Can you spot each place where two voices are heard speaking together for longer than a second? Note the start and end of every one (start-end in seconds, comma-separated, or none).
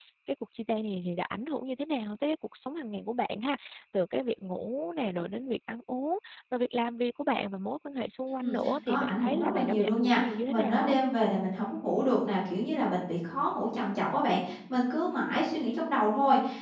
8.4-11.0